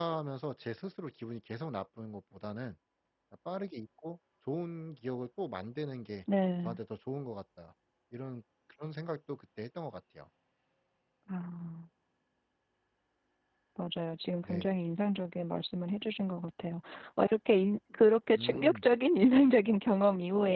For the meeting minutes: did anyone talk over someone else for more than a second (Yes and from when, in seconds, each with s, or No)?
No